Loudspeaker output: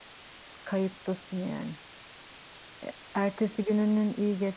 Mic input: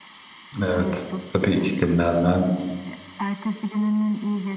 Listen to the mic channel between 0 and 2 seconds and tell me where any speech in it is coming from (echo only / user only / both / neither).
both